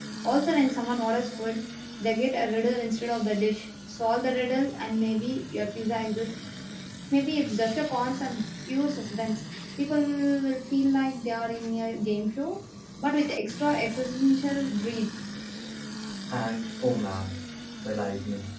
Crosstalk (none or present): none